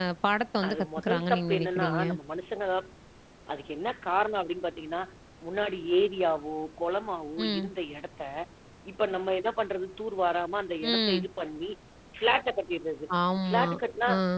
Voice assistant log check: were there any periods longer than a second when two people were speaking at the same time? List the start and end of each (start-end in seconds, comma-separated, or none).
0.7-2.0